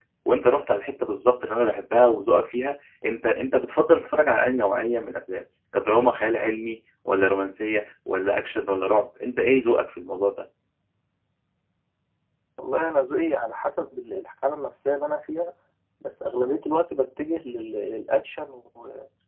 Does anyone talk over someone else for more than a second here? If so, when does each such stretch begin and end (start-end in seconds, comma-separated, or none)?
none